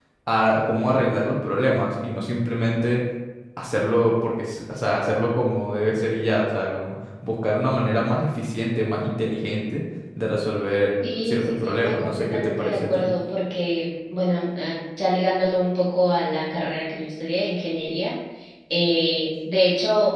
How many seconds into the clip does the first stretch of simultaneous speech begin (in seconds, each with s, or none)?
11.0 s